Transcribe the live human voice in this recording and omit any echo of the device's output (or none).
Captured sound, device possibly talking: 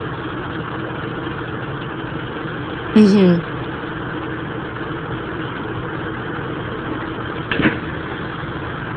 Mmh